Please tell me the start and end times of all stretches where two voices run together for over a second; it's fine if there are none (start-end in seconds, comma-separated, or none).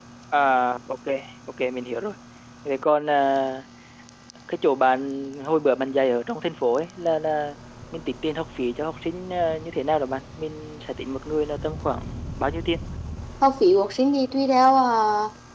none